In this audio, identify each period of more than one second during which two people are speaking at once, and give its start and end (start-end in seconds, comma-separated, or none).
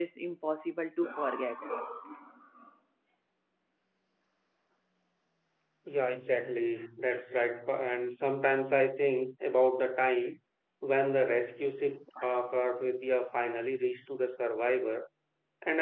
none